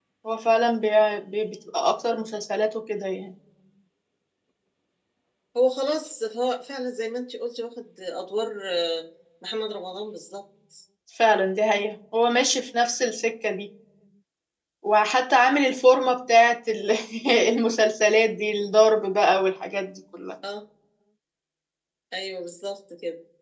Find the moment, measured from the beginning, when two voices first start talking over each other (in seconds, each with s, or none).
none